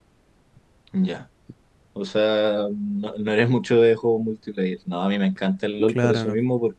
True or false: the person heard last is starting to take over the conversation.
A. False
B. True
A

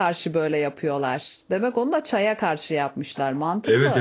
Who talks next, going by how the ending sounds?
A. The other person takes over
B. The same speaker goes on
A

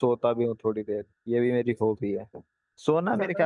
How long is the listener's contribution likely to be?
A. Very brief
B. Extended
A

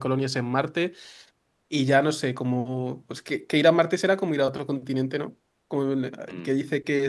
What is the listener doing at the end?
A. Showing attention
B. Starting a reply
A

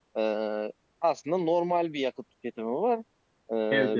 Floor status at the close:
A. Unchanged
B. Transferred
A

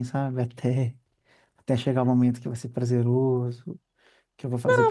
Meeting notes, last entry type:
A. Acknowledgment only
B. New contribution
B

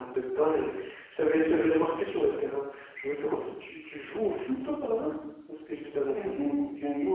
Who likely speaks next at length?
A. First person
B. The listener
B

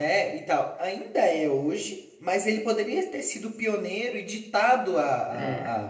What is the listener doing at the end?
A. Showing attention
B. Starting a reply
A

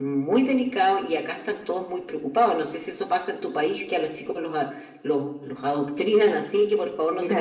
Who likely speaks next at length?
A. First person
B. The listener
B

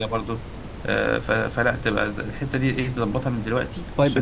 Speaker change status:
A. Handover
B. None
A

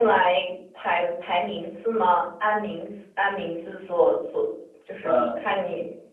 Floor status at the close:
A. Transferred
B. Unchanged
B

